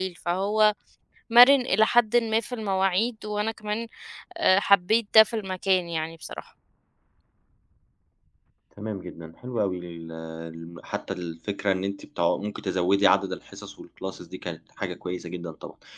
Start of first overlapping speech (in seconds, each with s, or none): none